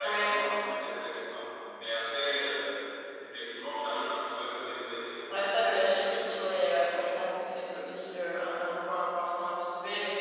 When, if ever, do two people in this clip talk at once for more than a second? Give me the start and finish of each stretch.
5.3-6.9

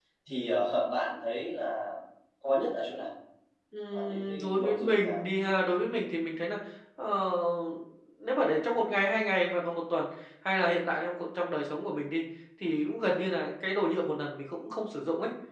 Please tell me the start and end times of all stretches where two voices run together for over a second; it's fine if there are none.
3.9-5.2

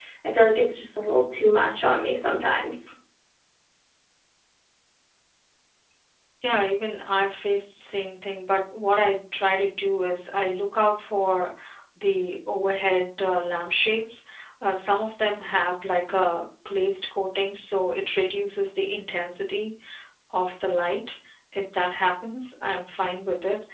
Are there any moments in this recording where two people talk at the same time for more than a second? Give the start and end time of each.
none

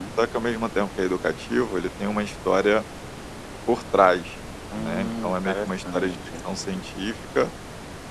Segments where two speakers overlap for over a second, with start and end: 4.8-6.2

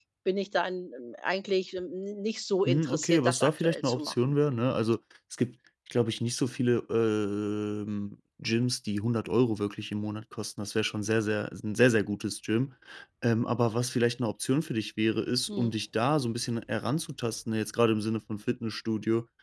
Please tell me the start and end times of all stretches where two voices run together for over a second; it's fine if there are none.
2.6-4.3

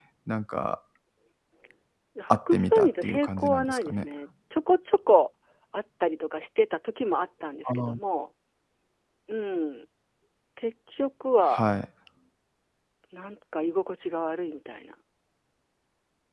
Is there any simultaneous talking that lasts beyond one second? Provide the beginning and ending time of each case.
2.3-4.0

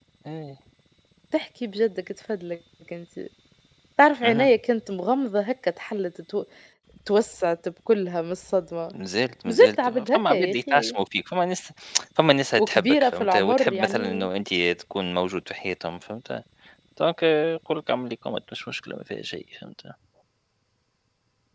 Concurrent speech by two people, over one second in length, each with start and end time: 9.5-10.9, 12.6-14.3

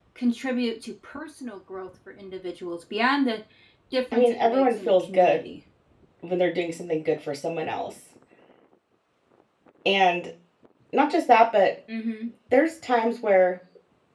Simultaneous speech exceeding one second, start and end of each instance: 4.1-5.5

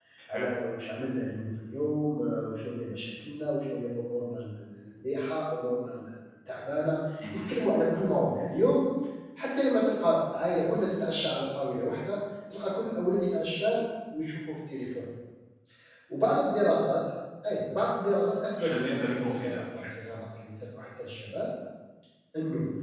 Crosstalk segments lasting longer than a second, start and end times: 18.6-19.9

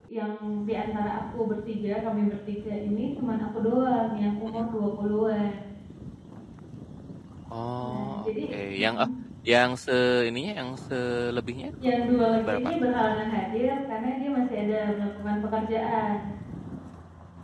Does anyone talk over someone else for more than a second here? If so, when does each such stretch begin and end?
7.8-9.1

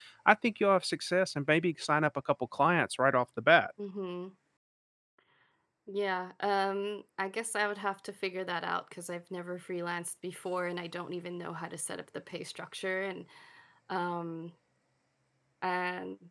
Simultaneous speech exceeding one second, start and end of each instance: none

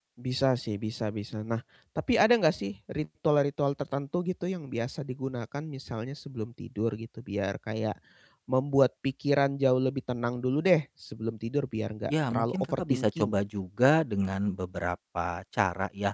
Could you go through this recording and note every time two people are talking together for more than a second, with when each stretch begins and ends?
12.1-13.3

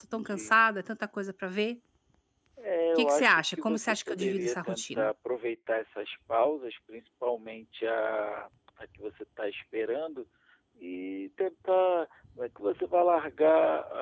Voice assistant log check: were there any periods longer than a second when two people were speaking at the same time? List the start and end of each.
3.0-5.1

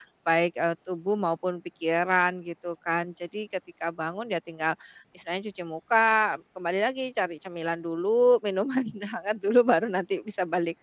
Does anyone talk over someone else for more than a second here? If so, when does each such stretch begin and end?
none

